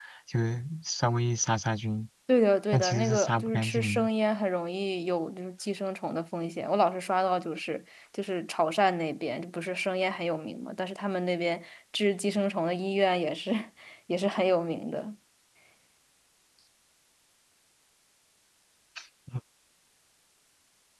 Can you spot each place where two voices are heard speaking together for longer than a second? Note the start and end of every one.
2.7-4.1

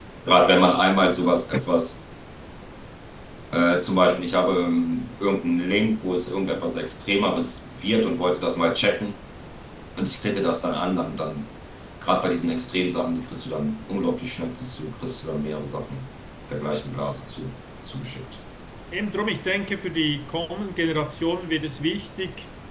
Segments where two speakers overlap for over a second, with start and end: none

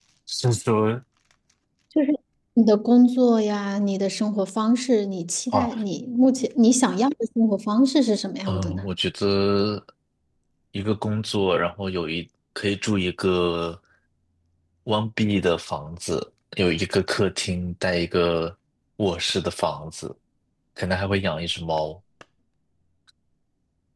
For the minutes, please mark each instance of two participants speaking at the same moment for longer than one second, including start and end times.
none

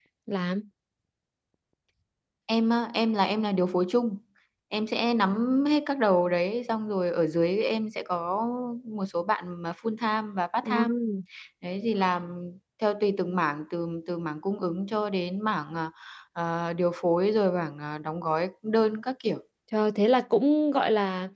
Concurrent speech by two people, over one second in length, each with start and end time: none

